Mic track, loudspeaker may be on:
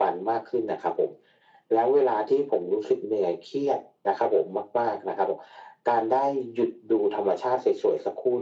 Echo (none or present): present